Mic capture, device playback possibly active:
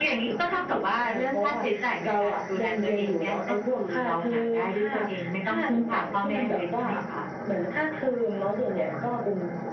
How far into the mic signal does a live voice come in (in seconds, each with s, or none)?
none